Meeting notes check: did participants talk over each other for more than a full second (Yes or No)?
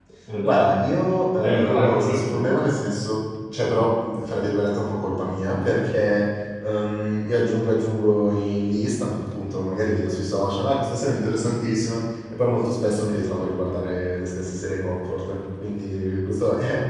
Yes